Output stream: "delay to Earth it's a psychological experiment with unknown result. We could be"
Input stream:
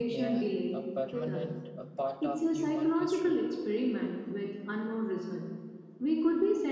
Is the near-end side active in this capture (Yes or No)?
Yes